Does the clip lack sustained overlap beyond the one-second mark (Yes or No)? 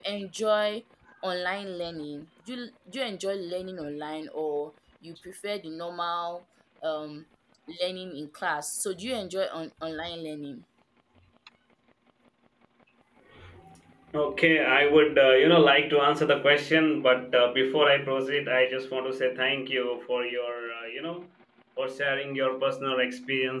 Yes